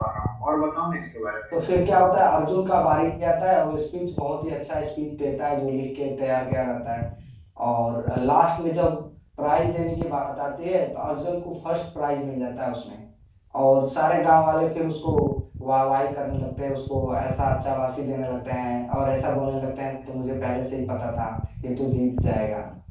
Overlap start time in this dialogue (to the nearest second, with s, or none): none